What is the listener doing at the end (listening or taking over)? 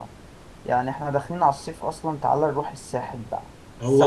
taking over